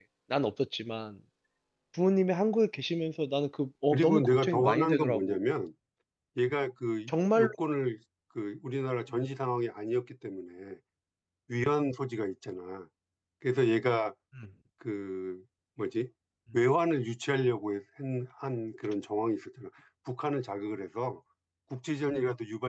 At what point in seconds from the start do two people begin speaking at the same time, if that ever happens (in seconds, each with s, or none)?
3.9 s